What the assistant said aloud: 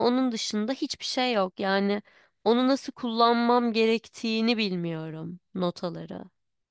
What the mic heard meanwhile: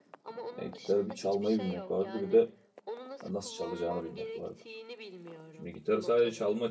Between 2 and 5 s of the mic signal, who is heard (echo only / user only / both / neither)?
both